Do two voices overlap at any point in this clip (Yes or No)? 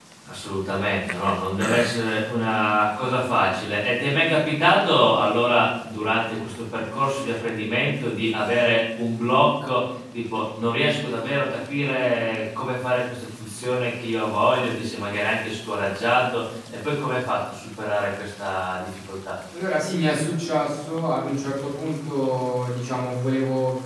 No